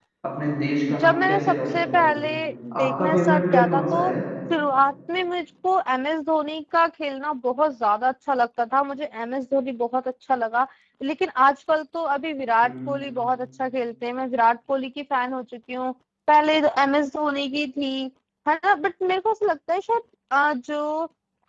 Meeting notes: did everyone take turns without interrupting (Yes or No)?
No